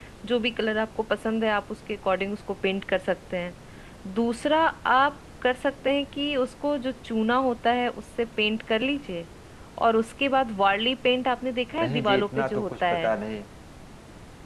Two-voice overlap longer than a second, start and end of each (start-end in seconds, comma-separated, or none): 11.8-13.1